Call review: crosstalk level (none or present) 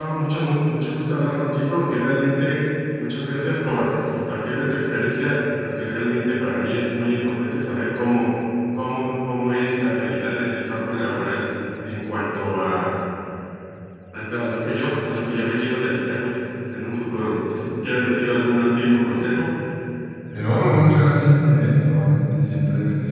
none